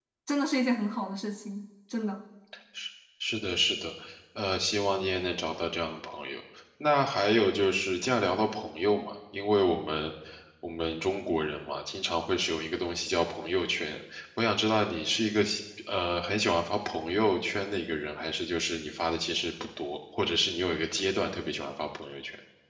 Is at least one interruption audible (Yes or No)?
No